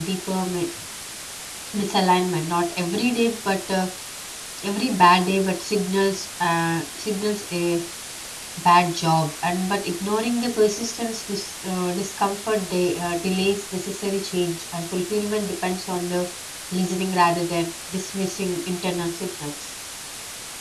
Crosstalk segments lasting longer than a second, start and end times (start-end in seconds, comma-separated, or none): none